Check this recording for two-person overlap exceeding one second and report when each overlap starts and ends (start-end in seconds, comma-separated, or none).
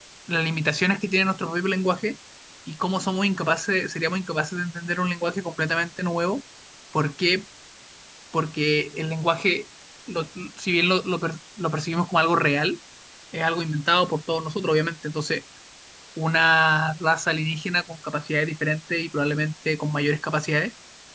none